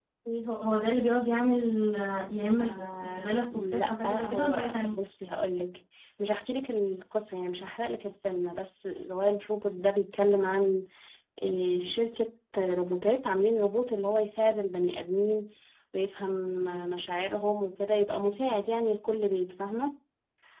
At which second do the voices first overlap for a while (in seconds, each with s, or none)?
2.6 s